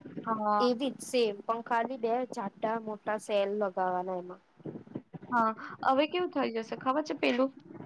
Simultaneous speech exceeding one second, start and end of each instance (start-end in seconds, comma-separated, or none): none